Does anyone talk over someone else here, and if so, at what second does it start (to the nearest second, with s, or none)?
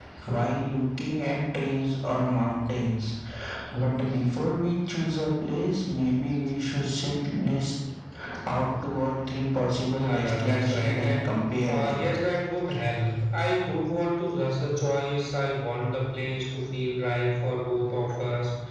10 s